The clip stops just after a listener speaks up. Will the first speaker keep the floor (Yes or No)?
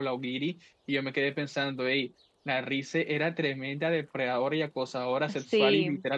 Yes